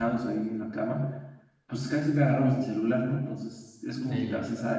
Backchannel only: Yes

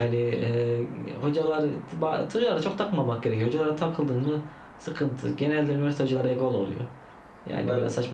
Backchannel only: Yes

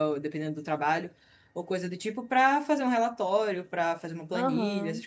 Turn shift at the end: No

